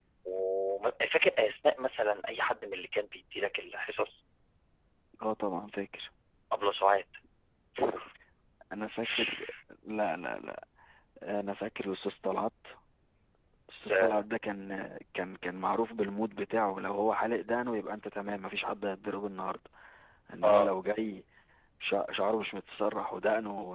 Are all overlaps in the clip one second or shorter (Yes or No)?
Yes